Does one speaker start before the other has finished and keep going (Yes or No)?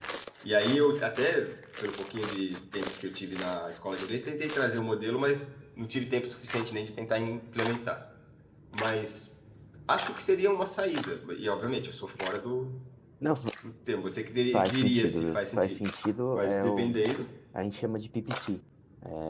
Yes